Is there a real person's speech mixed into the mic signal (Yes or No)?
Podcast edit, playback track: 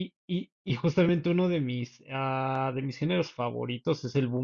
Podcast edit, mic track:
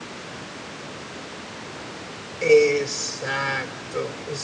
Yes